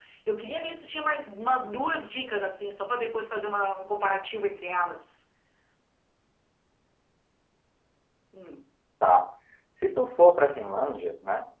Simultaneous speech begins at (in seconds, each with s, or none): none